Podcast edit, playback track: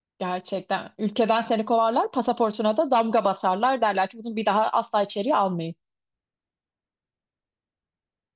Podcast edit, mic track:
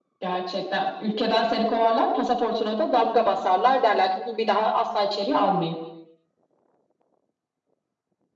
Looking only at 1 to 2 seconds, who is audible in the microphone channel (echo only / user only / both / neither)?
echo only